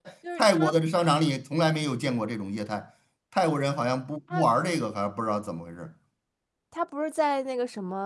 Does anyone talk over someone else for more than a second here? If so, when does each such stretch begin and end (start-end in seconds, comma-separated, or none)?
none